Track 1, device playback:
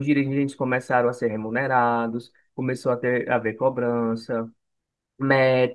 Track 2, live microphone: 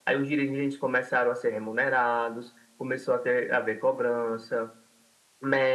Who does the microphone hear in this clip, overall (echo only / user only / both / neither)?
echo only